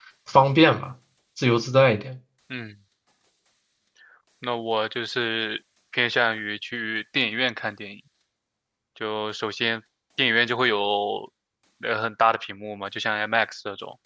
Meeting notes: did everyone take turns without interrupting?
Yes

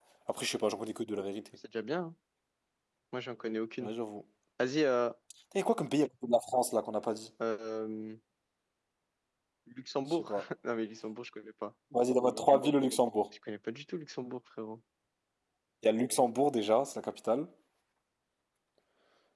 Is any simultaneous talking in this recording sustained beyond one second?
No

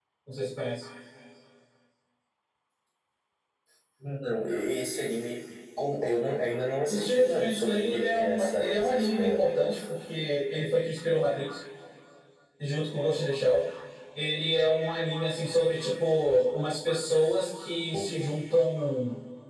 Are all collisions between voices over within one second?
No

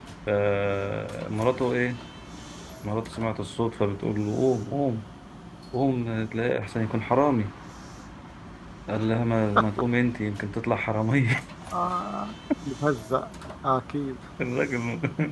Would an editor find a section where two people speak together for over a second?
No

